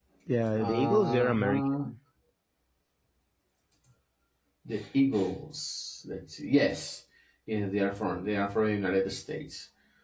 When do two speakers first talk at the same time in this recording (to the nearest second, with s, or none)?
1 s